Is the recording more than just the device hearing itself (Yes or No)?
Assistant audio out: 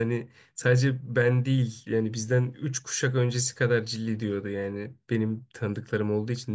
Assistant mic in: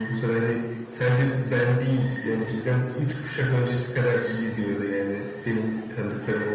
No